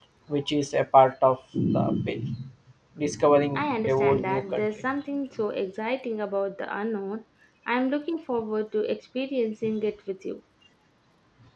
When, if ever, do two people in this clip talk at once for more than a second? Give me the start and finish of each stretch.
3.5-4.8

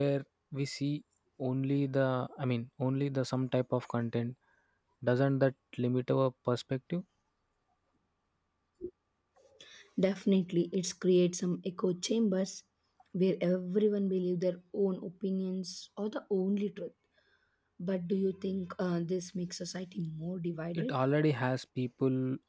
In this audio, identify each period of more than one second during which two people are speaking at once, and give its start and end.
none

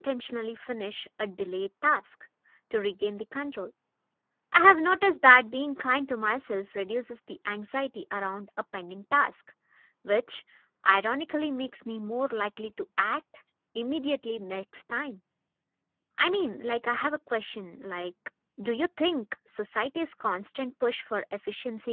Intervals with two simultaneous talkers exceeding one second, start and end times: none

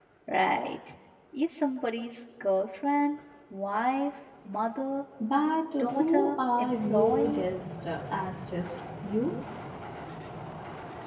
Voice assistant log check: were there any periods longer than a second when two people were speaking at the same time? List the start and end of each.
5.8-7.4

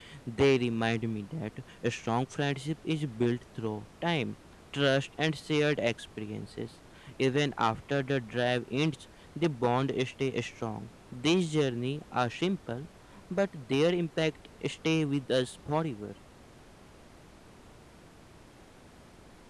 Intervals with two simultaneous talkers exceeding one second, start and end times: none

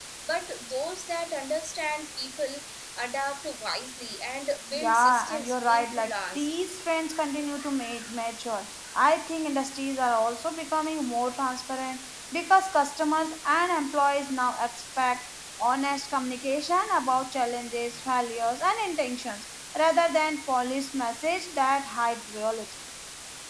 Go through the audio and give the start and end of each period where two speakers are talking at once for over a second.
4.8-6.5

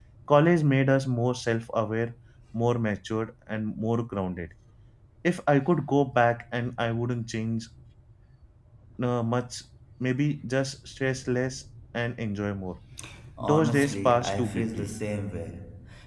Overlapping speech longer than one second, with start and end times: 13.4-14.9

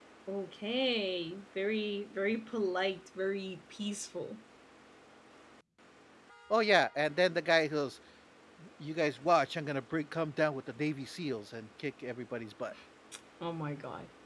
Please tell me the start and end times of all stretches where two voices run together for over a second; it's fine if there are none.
none

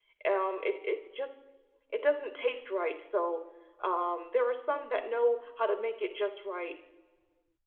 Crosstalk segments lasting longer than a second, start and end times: none

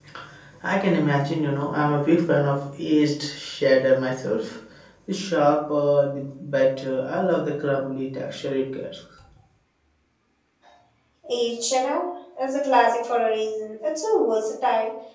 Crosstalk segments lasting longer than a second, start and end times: none

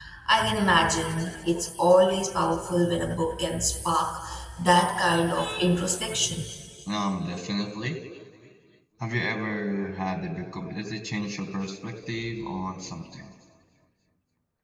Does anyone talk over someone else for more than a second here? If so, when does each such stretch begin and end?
none

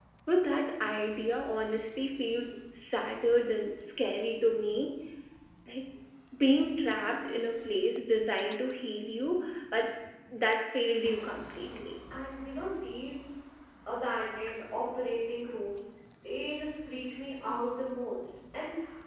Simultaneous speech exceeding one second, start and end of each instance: none

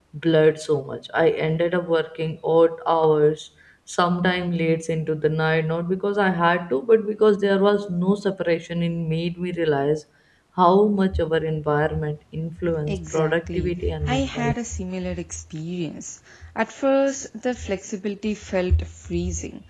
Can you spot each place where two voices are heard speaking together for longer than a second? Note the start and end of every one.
12.9-14.5

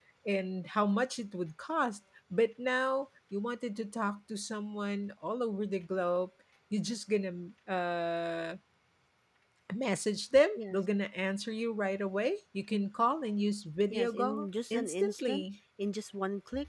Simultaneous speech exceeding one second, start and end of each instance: 13.9-15.4

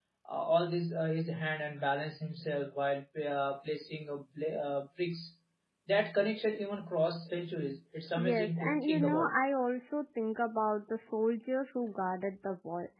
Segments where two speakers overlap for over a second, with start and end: 8.1-9.3

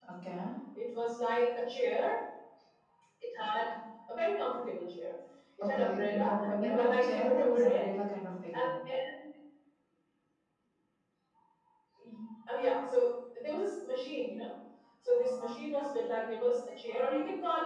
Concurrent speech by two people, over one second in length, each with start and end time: 5.6-7.9

